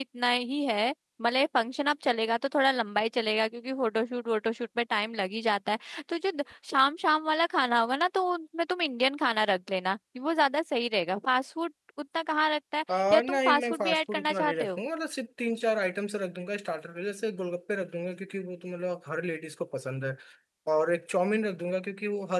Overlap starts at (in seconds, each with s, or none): 12.9 s